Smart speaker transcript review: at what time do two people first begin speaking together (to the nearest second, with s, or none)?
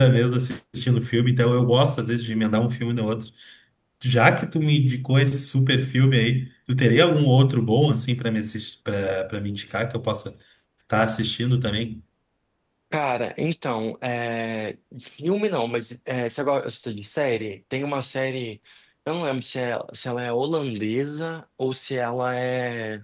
none